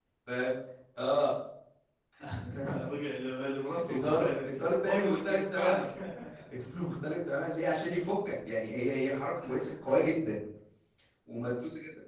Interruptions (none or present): present